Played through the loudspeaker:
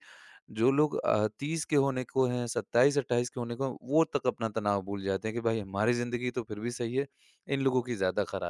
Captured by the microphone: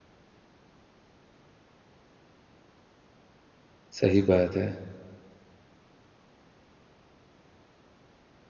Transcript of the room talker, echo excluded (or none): सही बात है।